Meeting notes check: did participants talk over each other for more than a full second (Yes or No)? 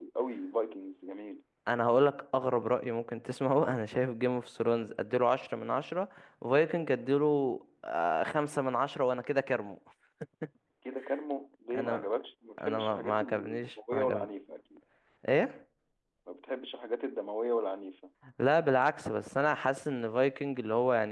Yes